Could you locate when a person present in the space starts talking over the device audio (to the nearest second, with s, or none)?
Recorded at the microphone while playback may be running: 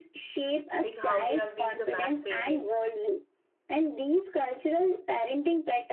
1 s